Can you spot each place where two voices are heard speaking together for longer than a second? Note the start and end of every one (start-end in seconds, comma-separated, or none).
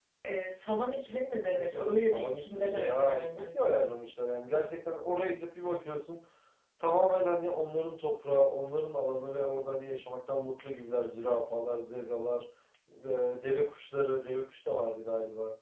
1.4-3.5